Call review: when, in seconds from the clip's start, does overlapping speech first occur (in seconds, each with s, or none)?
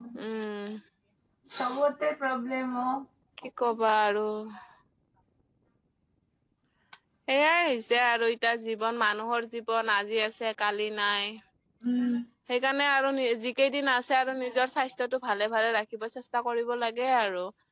none